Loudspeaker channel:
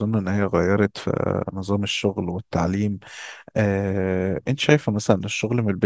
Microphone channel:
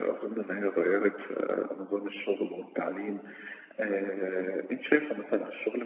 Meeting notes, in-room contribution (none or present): none